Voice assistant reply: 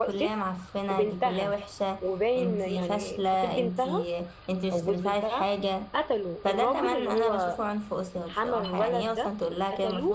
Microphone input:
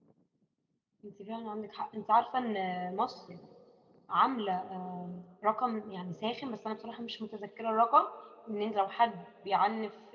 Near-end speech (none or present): present